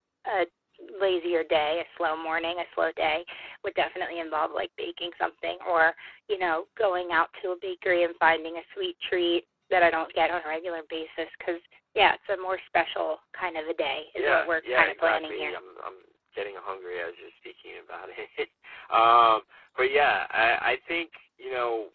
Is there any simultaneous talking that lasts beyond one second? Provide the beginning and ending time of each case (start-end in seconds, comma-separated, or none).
14.2-15.6